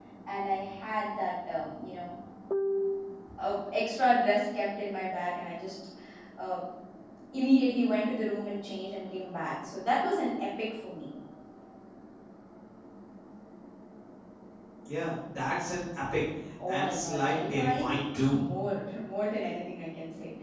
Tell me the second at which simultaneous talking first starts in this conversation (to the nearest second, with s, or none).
17 s